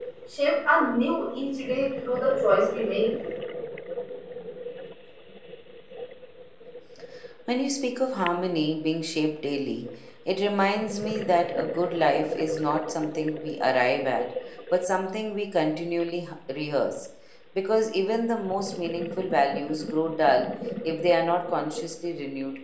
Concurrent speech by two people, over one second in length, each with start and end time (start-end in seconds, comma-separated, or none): none